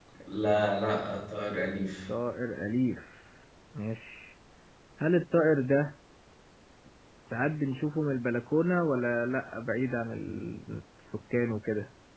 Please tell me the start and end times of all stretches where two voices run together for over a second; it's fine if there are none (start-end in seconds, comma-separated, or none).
none